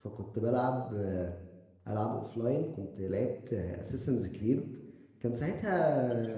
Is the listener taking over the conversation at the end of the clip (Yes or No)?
No